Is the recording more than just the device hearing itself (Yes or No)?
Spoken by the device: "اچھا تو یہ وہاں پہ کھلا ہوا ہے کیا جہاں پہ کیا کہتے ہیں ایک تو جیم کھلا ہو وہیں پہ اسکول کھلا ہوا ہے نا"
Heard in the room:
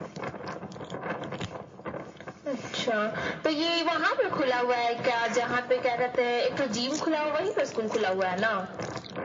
No